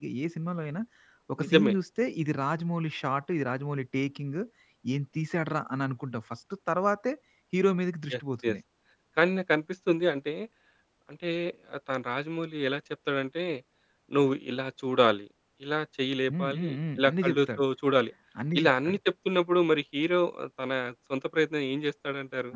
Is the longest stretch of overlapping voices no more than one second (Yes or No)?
No